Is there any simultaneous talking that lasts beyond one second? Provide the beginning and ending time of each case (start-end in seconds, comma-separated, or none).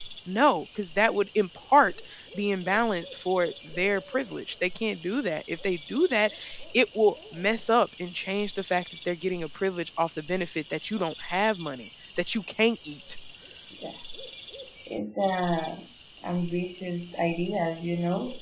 none